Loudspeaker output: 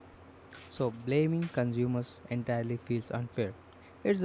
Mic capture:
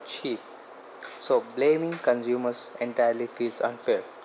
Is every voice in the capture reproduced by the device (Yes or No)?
Yes